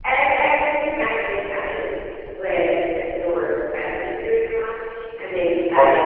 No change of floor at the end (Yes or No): Yes